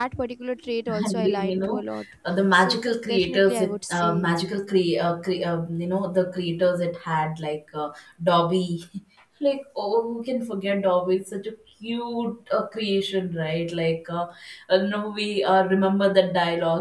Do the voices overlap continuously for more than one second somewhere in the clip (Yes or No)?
Yes